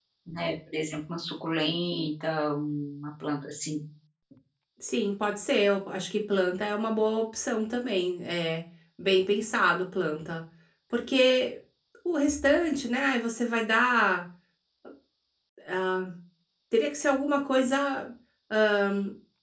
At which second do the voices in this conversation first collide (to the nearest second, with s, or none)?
none